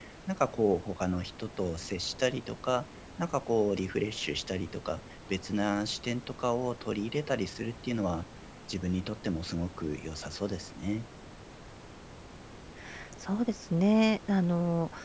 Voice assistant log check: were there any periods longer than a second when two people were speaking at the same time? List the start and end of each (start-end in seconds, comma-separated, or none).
none